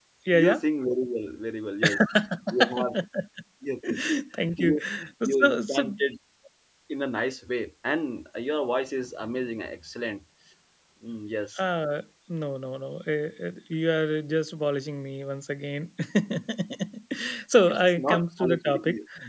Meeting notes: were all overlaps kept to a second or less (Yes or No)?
No